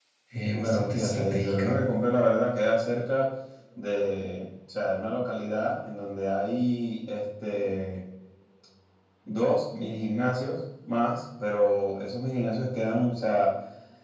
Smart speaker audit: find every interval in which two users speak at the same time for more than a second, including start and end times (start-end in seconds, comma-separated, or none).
0.5-1.8